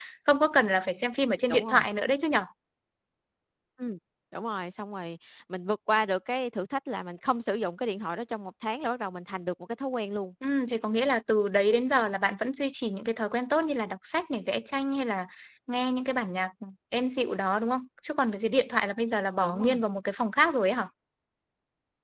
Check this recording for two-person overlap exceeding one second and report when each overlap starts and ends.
none

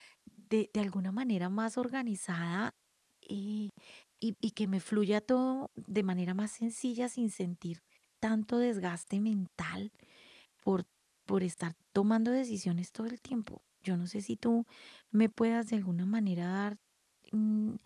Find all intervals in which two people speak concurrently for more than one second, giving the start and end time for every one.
none

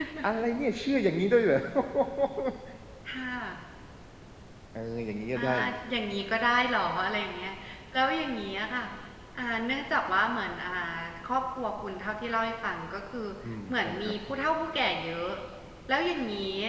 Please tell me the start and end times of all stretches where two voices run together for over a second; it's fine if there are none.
none

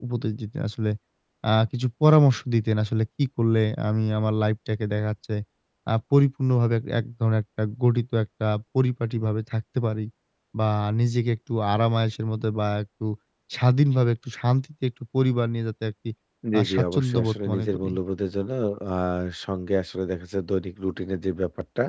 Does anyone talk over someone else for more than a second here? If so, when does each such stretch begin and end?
16.6-17.9

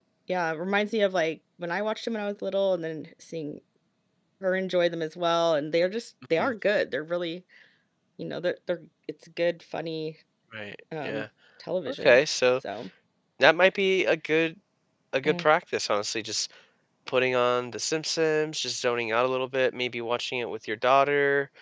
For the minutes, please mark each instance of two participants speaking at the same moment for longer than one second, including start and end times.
none

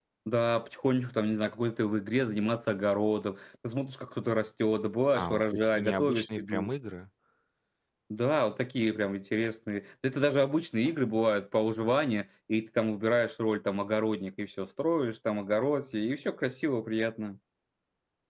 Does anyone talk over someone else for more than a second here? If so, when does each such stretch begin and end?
5.1-6.7

